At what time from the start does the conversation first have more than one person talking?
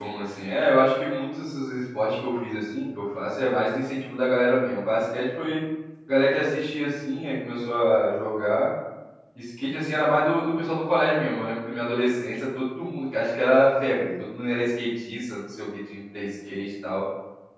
none

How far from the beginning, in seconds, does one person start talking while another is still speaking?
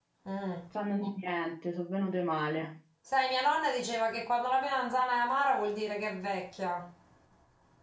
none

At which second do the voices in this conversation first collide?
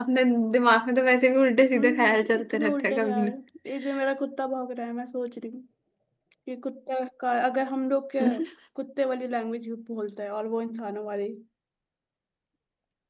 1.7 s

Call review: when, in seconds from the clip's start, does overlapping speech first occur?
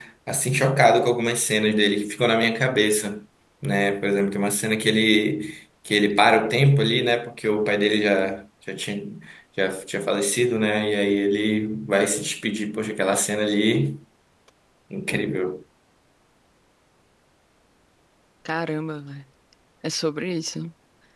none

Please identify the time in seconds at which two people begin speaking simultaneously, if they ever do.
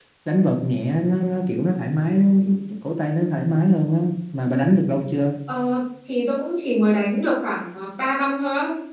none

